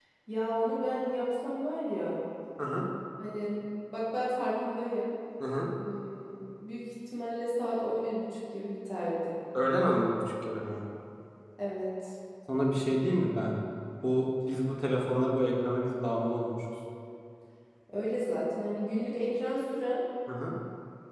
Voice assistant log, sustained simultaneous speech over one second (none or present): none